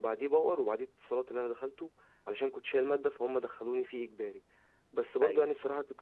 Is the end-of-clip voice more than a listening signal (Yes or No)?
No